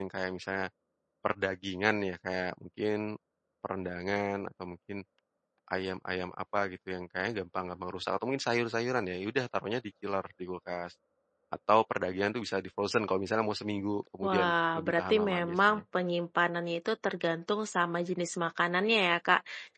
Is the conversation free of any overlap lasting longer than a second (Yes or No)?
No